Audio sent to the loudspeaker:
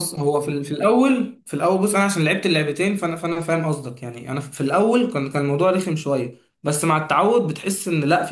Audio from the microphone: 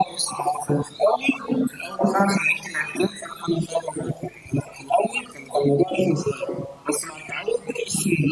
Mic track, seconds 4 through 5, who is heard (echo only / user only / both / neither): echo only